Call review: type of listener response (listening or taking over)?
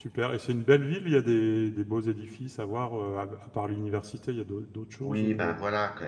taking over